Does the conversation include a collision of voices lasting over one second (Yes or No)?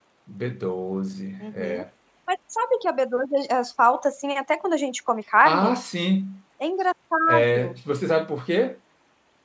No